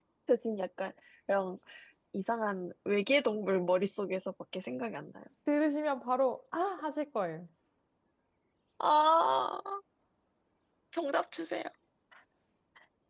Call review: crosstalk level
none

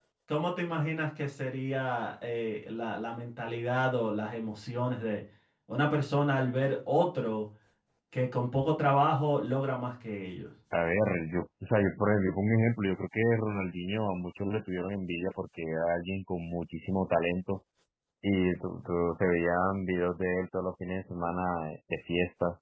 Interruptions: none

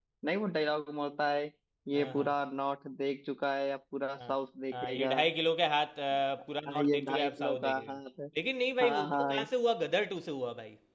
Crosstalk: present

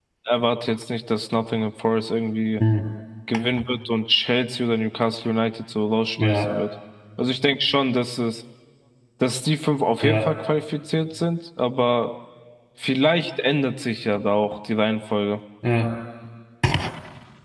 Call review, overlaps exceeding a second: none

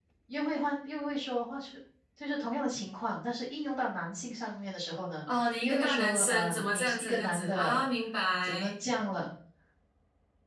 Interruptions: present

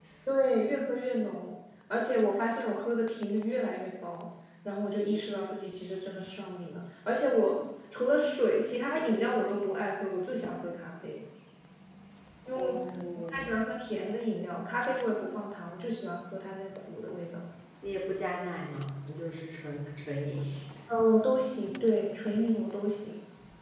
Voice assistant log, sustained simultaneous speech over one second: none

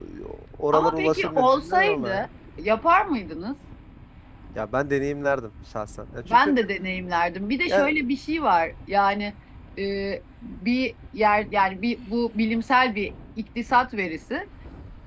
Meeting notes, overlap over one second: present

